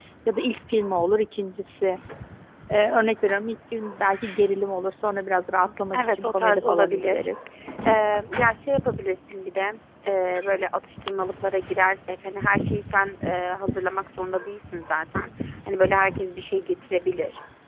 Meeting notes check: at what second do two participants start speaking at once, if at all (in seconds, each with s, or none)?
6.0 s